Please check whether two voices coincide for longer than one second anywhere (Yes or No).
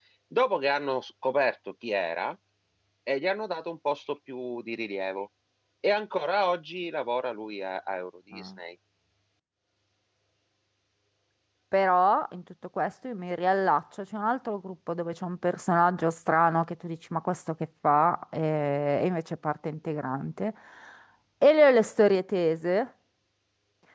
No